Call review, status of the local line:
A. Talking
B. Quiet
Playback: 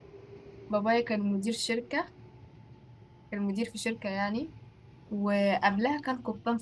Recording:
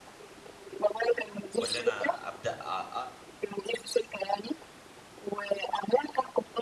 A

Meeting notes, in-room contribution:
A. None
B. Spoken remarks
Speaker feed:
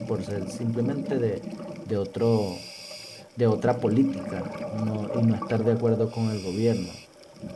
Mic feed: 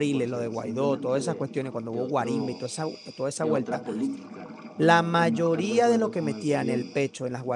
B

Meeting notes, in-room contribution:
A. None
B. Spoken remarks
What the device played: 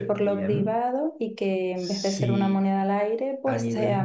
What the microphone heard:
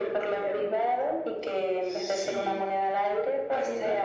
A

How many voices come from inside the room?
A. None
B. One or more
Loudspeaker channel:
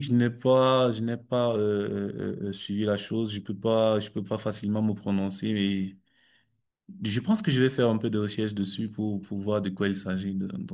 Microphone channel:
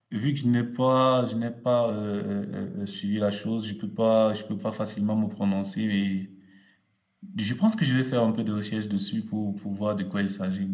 A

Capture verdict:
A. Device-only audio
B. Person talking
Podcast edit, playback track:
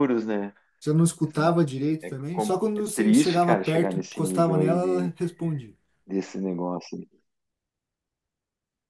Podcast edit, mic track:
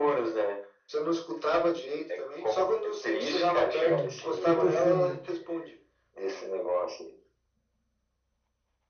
B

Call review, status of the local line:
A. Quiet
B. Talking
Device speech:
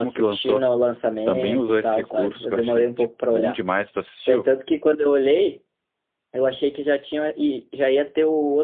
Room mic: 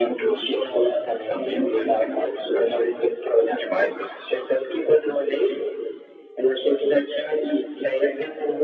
A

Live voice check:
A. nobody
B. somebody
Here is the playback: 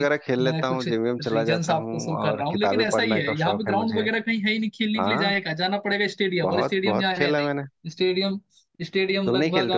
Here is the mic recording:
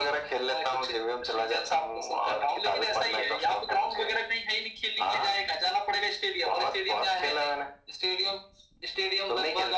A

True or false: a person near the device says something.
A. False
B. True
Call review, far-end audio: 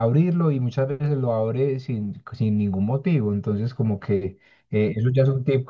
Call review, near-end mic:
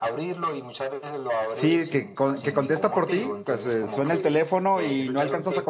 B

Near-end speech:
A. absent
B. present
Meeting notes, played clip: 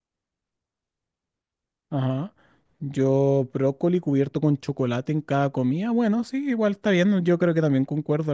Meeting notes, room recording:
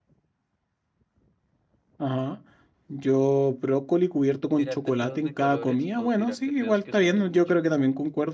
B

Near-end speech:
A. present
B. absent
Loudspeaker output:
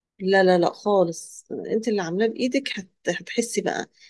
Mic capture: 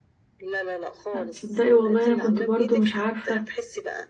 A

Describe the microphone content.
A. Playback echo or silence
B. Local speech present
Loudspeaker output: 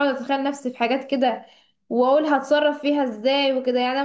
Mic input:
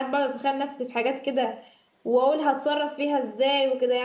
A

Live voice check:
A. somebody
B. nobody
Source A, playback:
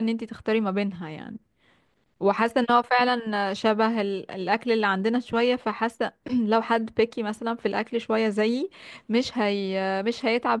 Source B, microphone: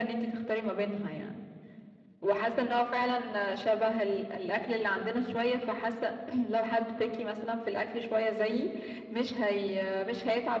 B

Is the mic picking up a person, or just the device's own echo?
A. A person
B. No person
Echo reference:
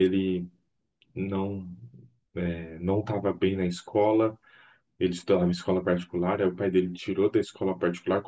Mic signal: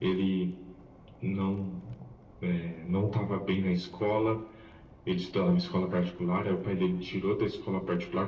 B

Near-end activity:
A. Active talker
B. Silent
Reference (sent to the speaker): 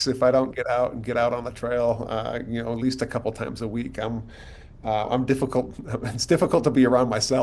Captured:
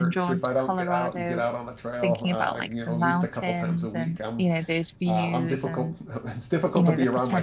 A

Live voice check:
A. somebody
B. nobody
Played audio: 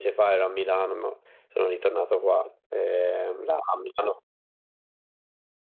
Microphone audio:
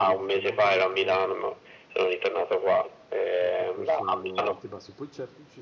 A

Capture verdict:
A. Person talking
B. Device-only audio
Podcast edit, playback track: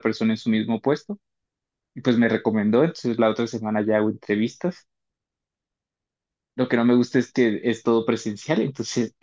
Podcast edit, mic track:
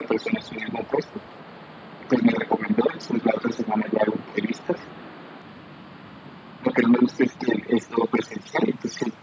B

